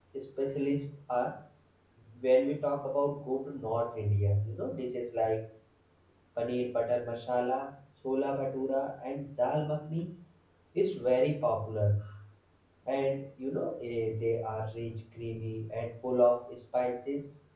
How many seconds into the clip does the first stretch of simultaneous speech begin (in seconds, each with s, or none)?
none